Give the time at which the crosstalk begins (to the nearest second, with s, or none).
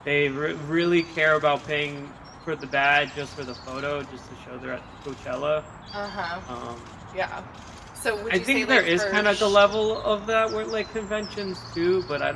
8 s